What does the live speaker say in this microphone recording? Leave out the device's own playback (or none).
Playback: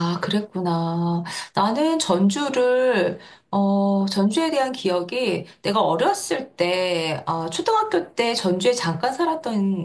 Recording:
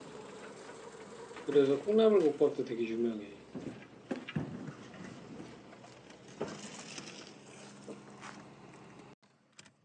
그래서 콩나물국밥도 되게 유명해.